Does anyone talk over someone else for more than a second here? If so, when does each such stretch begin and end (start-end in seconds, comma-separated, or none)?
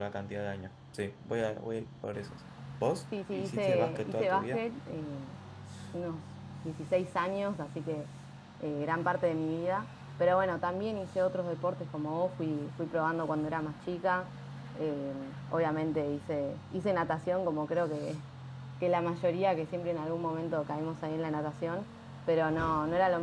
3.3-4.6